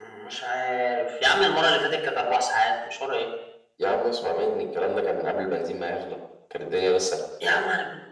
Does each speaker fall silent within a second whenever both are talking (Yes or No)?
Yes